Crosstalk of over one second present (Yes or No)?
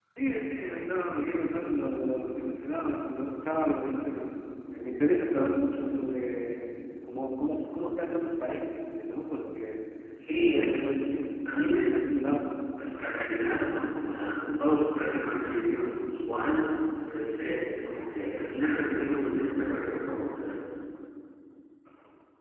No